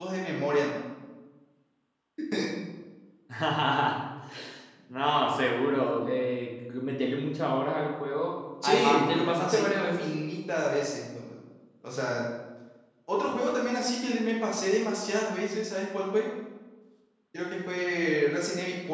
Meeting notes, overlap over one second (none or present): present